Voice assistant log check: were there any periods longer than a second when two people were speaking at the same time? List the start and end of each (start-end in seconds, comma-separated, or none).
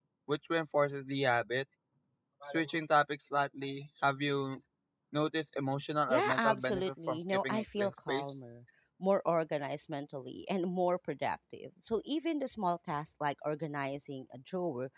6.1-8.3